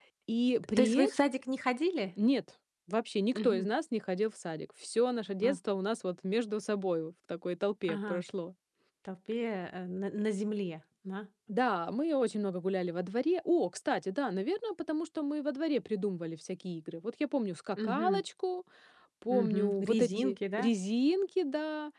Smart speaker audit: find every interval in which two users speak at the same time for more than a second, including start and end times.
19.4-20.6

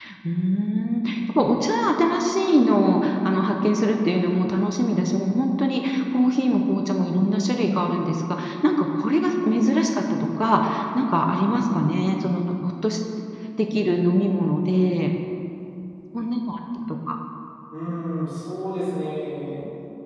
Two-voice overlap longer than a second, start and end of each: none

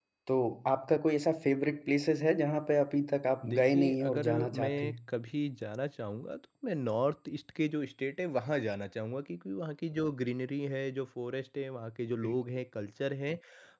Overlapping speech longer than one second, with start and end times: 3.5-4.9

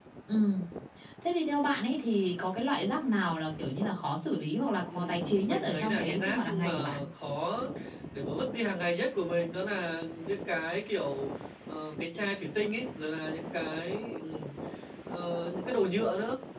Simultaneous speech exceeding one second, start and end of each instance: 4.9-7.0

